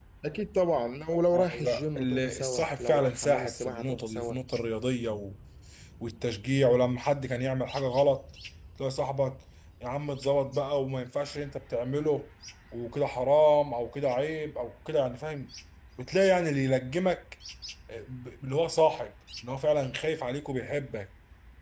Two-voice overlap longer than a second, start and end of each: 1.3-4.3

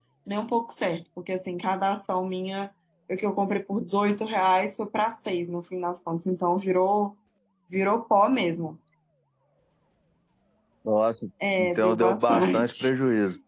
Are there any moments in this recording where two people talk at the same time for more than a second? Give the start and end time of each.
11.6-12.9

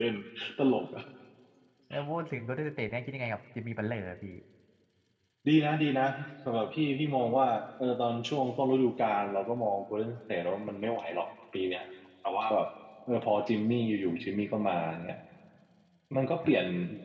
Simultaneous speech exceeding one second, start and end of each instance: none

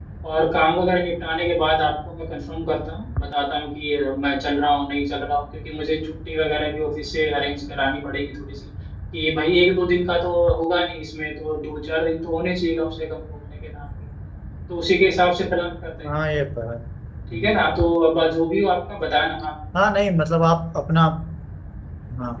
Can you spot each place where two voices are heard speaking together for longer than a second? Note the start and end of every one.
none

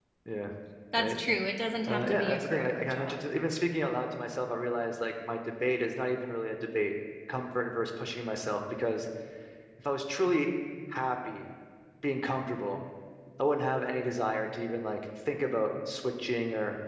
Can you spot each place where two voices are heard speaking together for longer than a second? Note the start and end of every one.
1.9-3.2

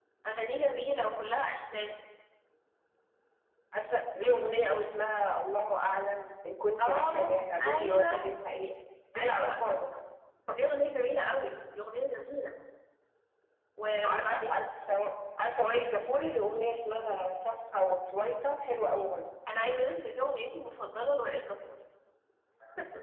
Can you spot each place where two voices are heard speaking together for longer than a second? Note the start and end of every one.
6.8-8.2

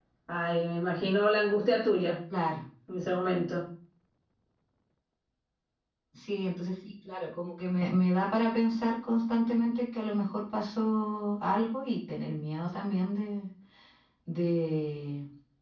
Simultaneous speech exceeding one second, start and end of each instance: none

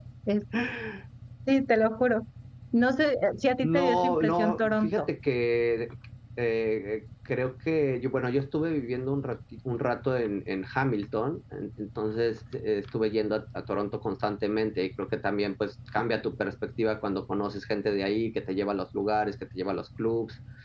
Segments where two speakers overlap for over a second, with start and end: 3.6-5.1

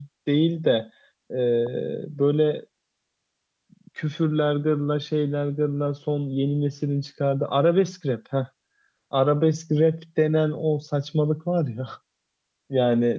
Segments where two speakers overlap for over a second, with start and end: none

